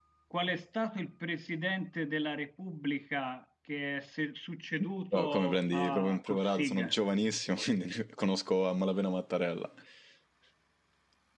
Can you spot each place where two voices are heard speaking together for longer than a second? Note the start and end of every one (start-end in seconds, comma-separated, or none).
5.1-6.9